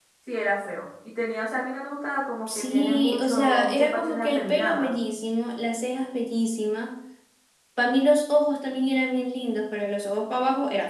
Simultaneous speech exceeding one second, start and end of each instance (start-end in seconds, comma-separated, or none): 2.5-4.9